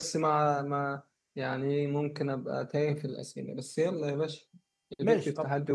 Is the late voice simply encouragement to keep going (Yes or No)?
No